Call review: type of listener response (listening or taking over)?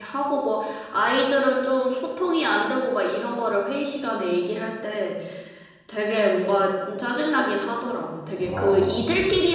listening